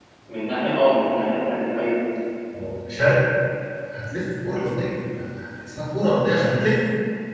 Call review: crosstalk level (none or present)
none